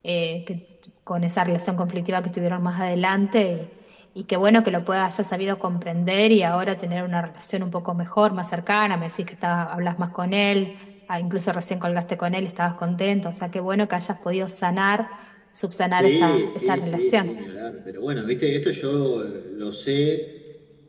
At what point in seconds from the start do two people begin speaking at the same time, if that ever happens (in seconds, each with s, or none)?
16.0 s